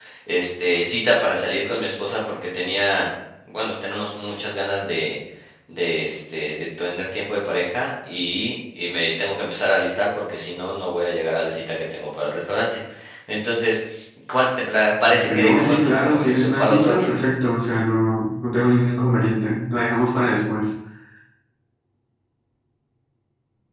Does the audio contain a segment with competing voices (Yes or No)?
Yes